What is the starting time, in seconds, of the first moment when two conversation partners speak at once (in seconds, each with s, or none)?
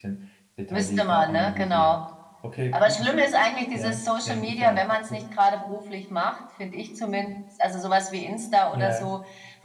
0.7 s